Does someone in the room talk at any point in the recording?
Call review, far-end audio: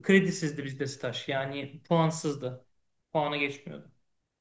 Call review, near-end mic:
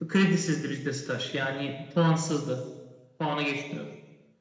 No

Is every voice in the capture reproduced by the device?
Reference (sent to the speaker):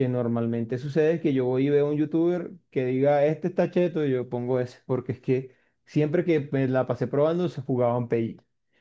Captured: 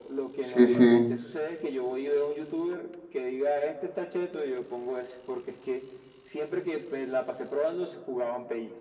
No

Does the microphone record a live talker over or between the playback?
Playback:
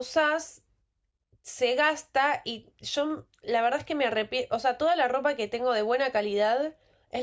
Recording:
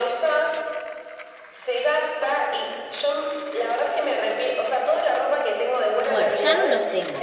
Yes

